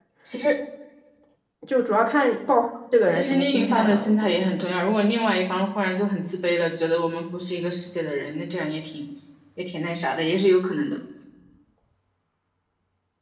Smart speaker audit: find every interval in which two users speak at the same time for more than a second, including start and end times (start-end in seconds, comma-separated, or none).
3.0-4.7